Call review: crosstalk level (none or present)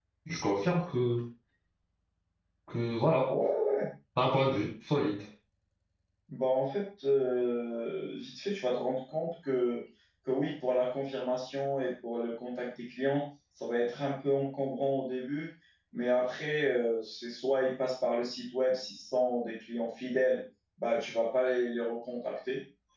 none